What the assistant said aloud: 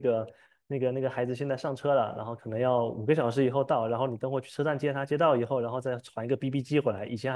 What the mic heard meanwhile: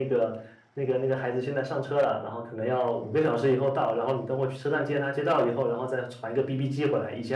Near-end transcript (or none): none